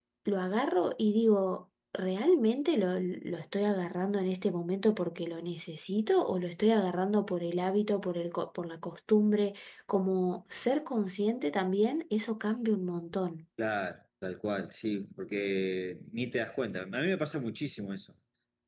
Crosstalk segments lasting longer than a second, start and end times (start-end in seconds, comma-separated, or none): none